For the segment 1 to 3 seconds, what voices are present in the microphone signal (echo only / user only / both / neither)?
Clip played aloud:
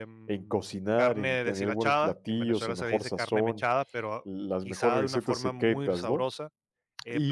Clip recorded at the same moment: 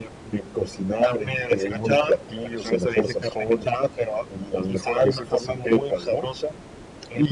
echo only